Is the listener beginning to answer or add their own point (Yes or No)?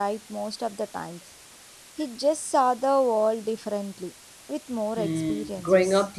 Yes